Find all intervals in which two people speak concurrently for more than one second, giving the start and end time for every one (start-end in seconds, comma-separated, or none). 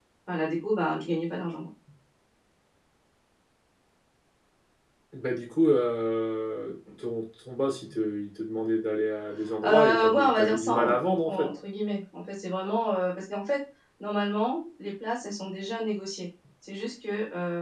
9.6-11.5